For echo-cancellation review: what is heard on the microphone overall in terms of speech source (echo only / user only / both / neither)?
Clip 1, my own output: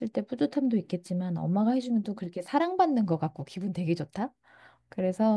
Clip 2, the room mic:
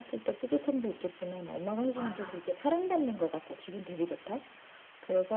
both